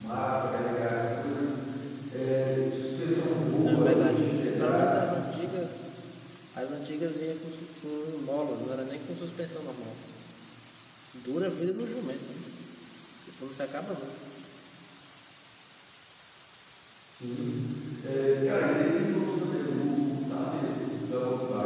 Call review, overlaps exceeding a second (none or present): present